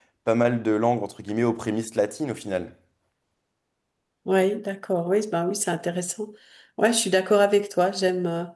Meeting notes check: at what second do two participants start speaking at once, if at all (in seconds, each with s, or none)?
none